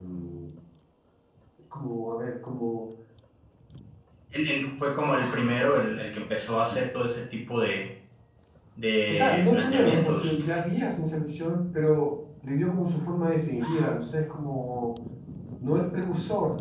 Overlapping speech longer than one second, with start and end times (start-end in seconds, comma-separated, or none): 9.1-10.3